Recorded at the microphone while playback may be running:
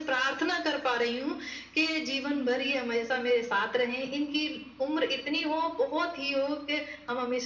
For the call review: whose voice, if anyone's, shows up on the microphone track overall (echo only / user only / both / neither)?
both